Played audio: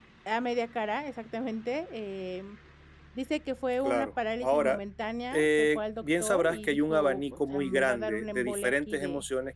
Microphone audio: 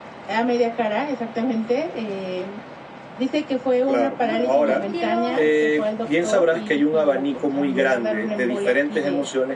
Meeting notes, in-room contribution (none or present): present